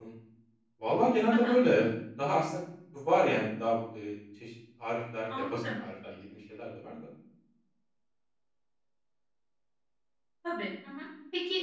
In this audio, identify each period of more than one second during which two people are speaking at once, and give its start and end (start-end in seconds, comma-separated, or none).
none